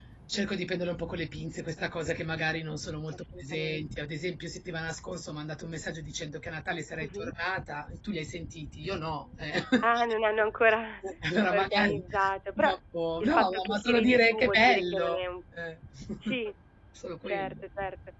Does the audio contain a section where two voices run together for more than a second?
Yes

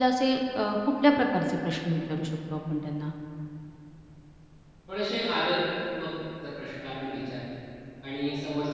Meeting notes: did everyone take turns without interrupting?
Yes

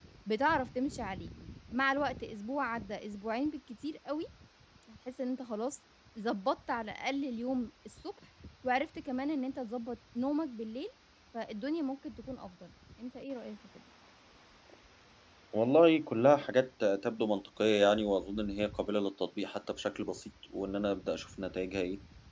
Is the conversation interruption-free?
Yes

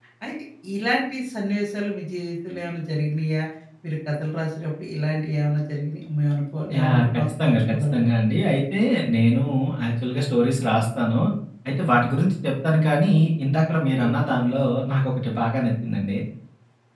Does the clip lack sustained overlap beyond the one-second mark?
No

